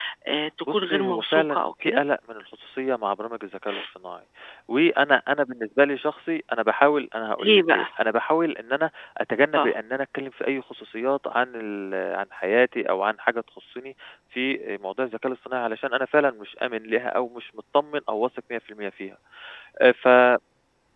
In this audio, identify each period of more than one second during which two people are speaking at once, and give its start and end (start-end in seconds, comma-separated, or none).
0.7-2.0